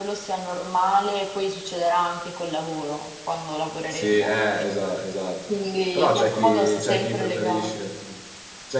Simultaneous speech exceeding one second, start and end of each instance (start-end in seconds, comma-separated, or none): 6.0-7.9